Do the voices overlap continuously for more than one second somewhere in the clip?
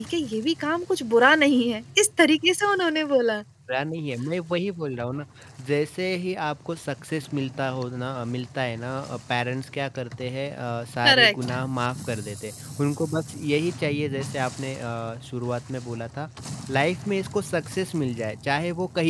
No

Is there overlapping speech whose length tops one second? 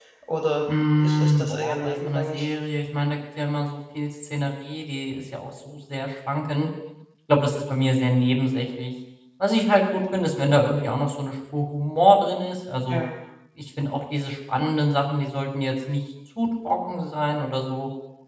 Yes, from 0.9 s

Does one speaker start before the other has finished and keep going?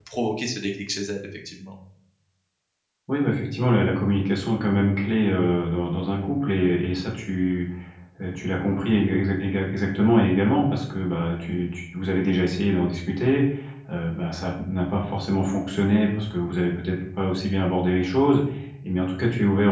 No

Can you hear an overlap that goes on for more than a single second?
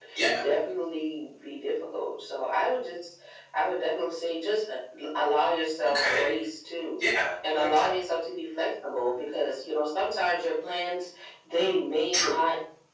No

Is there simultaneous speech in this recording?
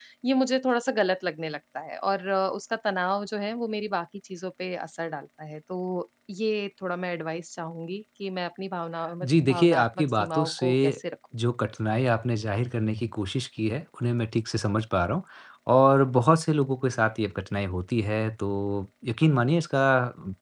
Yes, from 9.2 s

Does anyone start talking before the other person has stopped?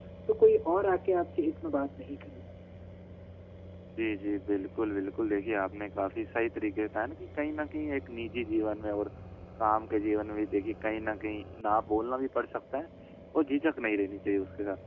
No

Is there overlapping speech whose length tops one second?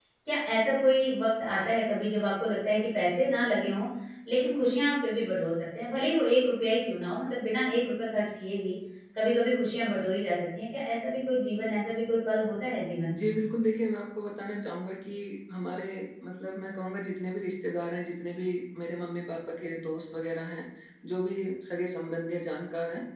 No

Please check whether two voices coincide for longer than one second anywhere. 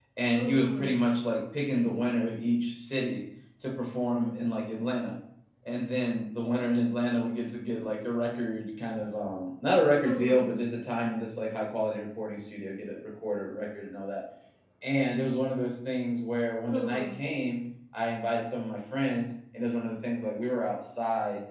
No

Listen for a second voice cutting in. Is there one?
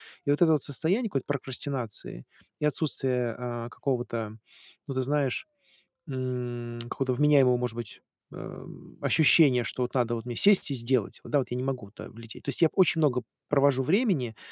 No

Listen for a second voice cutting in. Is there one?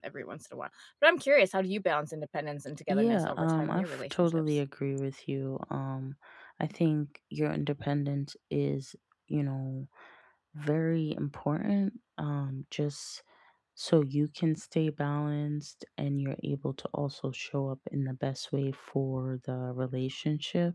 Yes, from 2.9 s

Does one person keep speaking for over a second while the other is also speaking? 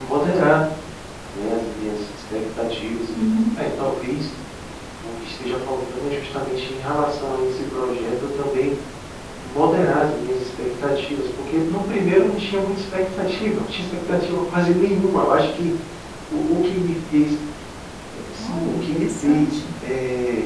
Yes, from 18.4 s

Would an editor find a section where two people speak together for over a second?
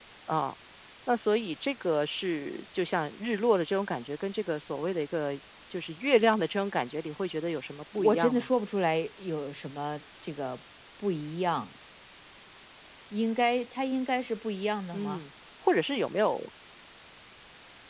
No

